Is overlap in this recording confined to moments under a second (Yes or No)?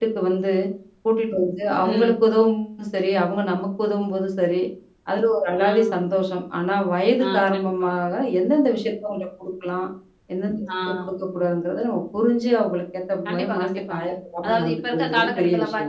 No